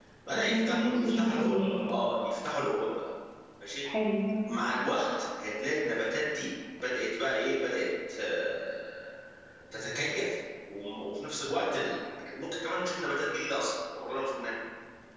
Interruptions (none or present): present